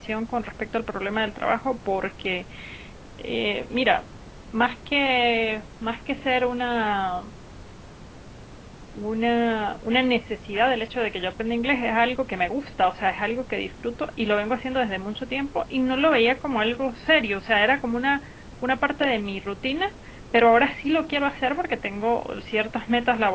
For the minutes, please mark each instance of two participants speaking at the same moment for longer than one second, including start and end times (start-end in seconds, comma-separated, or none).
none